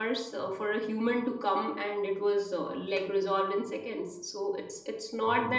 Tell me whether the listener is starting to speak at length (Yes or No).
Yes